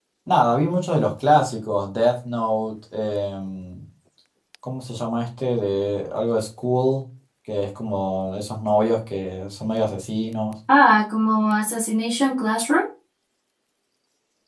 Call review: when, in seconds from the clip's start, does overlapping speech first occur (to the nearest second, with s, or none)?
none